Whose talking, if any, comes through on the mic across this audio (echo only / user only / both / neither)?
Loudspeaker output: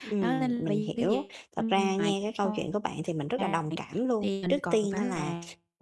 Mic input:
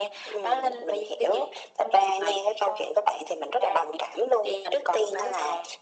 echo only